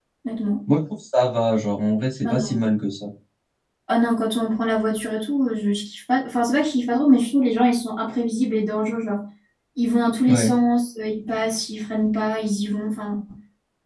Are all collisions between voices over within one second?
Yes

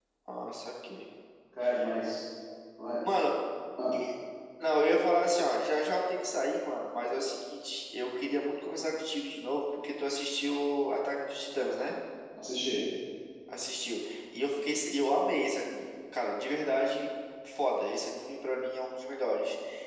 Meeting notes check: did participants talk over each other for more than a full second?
No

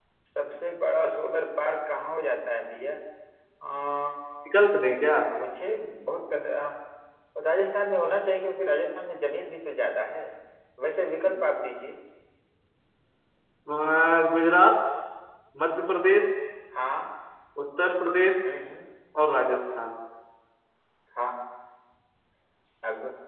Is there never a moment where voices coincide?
Yes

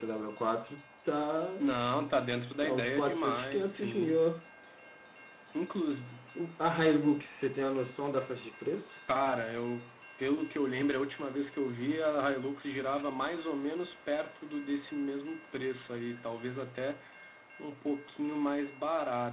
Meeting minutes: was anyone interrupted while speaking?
Yes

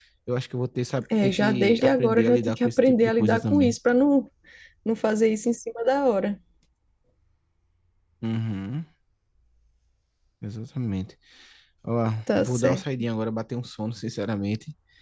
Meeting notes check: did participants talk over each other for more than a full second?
Yes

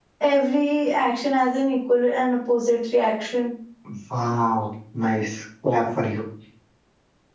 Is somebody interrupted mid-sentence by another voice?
No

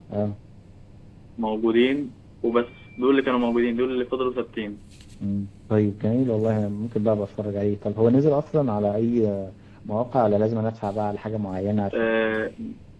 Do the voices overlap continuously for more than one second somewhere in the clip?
No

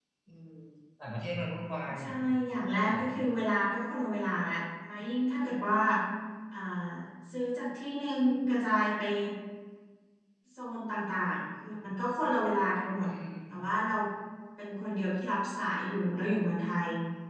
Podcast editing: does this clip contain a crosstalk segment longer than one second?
No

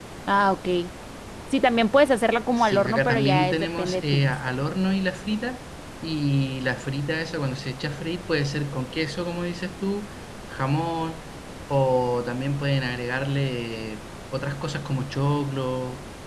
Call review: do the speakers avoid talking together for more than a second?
No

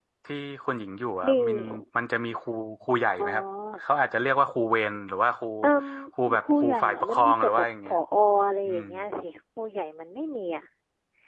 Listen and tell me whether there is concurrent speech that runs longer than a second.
Yes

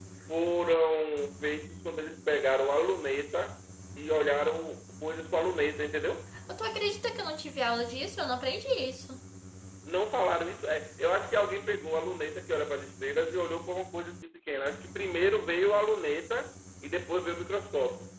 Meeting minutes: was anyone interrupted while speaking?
No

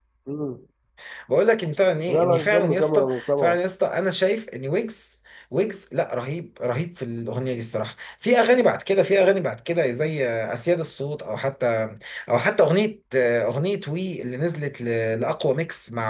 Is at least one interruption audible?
Yes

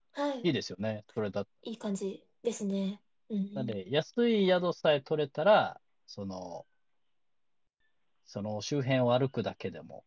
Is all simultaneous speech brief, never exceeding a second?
Yes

